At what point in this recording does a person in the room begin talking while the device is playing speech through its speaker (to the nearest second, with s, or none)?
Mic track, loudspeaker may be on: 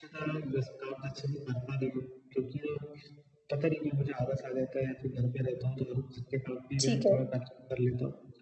7 s